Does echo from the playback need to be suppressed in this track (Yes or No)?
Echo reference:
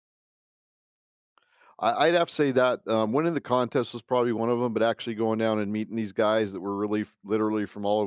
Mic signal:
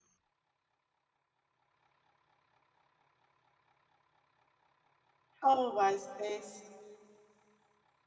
No